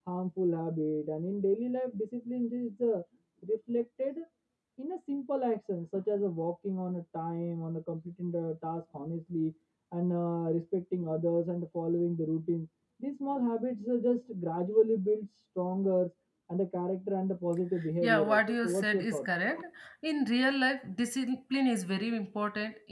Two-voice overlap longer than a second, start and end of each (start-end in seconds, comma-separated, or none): 18.0-19.3